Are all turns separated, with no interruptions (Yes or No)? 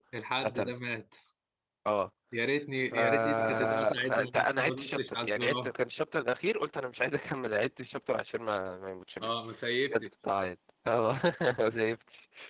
No